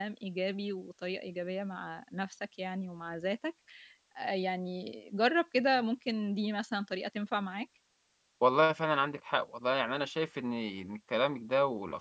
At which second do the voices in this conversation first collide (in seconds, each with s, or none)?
none